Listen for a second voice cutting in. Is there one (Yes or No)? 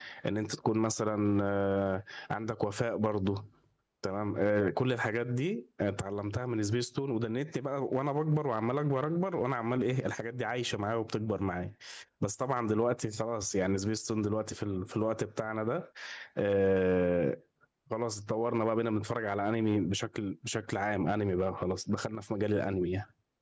No